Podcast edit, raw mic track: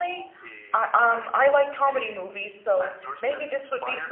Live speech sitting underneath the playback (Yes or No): No